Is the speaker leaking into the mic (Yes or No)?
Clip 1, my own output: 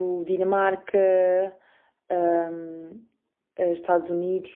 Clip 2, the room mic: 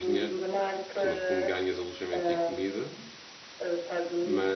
Yes